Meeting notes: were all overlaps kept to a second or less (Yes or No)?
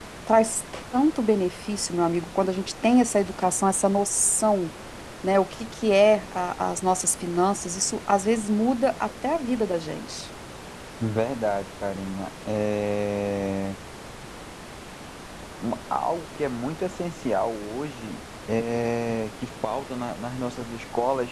Yes